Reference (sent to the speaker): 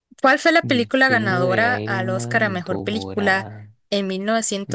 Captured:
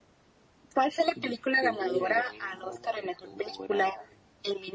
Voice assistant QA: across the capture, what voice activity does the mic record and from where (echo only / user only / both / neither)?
echo only